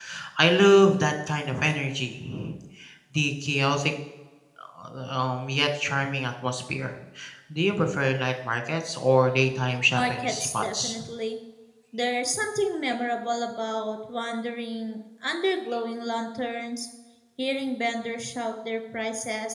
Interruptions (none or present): present